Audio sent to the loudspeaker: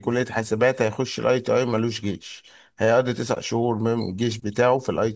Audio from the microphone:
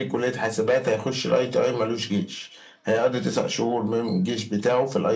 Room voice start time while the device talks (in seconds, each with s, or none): none